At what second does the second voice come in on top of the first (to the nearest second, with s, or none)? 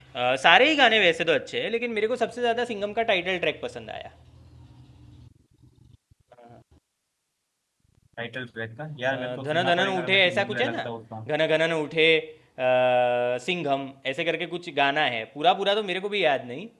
9 s